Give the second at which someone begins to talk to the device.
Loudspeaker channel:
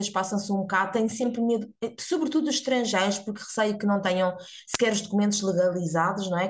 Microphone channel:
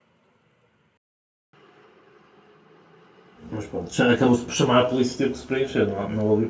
3.5 s

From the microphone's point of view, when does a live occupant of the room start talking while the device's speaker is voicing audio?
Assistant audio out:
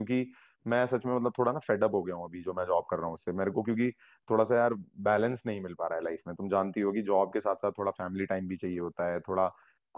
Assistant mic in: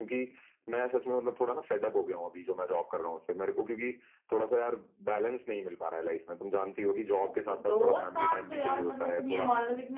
7.2 s

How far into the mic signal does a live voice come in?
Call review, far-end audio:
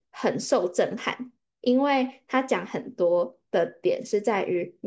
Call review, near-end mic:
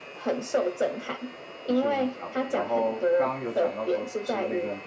1.6 s

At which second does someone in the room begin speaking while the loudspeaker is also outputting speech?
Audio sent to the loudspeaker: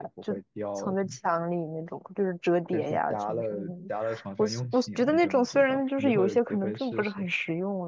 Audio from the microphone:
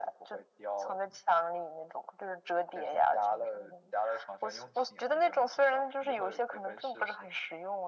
none

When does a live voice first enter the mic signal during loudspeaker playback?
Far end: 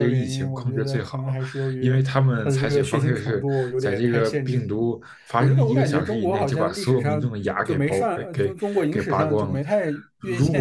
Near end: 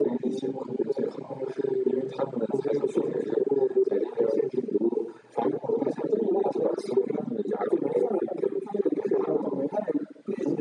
none

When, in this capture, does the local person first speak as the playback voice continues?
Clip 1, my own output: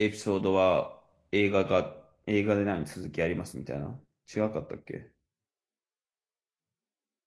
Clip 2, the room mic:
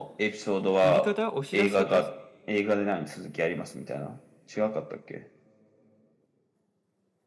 0.8 s

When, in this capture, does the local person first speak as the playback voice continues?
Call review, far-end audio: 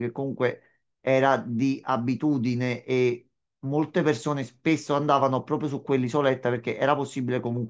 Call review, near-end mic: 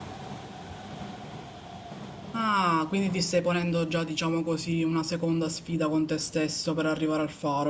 2.3 s

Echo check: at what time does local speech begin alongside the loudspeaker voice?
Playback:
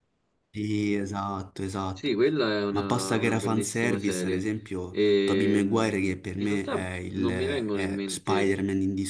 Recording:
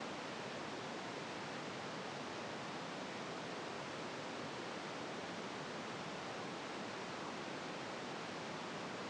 none

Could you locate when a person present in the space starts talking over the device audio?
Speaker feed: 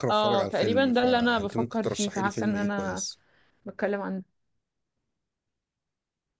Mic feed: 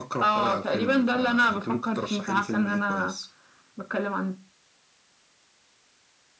none

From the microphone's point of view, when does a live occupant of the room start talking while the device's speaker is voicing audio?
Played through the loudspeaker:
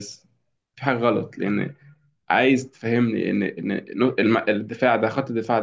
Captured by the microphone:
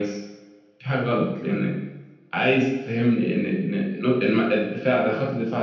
none

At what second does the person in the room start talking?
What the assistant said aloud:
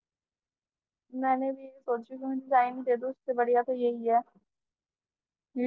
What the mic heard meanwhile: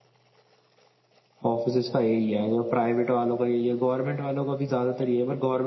1.4 s

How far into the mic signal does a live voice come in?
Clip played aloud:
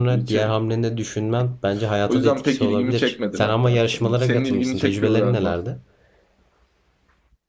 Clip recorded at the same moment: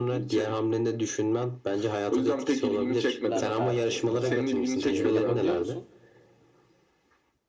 3.2 s

